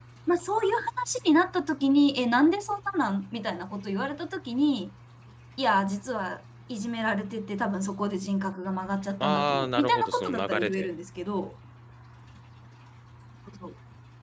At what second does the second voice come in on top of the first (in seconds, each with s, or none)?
9.2 s